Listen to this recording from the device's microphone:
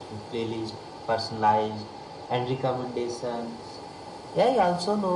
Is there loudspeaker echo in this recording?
Yes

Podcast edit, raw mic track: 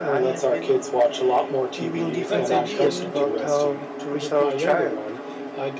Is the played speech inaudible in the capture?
No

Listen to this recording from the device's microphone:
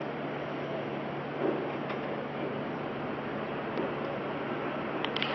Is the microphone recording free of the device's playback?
Yes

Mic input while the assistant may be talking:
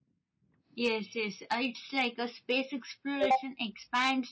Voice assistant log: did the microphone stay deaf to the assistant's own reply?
Yes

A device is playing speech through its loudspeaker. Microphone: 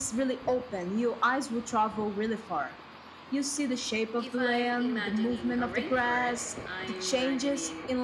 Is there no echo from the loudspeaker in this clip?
No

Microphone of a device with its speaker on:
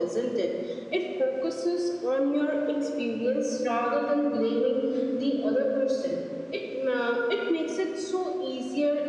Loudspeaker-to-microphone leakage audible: Yes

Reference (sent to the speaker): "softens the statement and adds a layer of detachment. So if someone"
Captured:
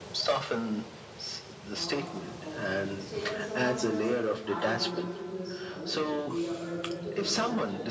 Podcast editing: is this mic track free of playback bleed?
No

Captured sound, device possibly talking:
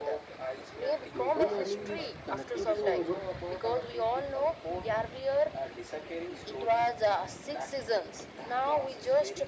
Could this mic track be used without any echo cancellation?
No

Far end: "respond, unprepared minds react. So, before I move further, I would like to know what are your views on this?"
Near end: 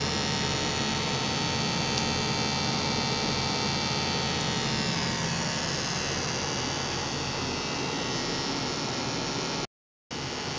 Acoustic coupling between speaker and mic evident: No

